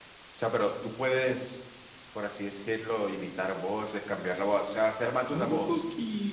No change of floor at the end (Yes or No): No